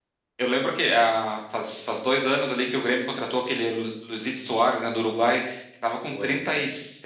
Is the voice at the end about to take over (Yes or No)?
No